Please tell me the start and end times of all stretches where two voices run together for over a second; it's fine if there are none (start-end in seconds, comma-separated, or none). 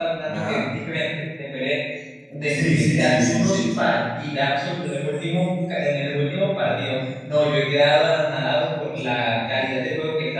2.4-3.9